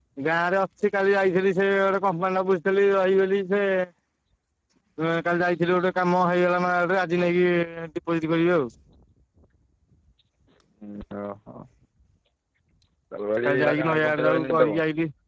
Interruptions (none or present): present